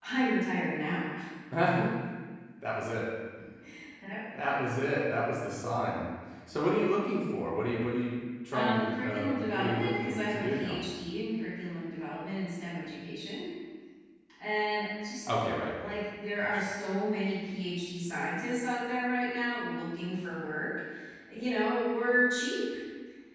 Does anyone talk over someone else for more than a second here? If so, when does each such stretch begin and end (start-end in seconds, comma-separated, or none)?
8.5-10.8